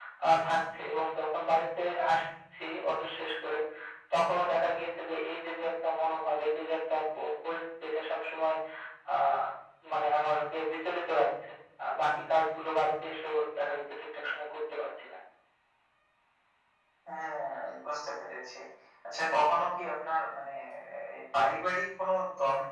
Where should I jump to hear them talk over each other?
none

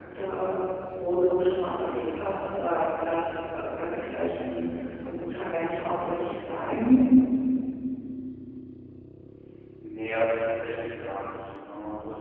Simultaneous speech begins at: none

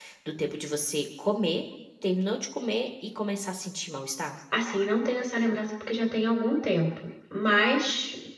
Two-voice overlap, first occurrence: none

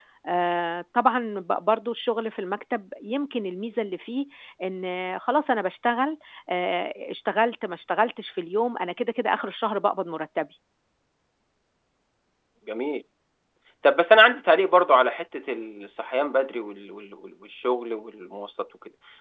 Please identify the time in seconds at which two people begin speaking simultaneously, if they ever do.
none

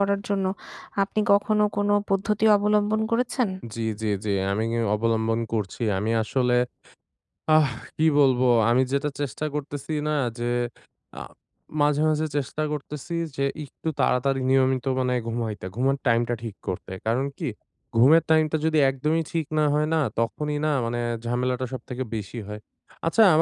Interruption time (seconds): none

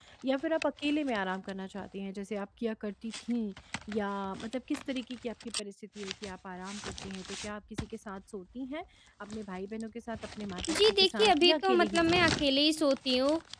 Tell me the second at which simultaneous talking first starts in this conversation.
11 s

